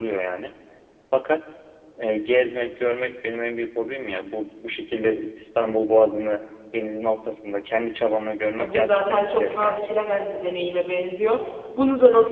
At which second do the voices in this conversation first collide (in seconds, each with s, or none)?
8.5 s